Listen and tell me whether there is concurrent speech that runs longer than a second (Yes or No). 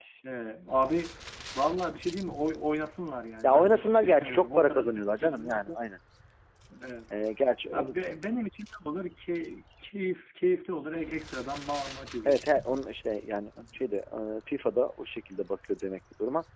Yes